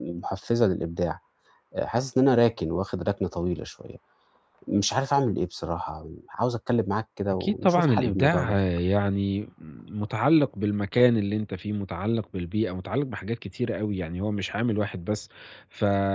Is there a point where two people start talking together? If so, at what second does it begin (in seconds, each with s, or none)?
7.3 s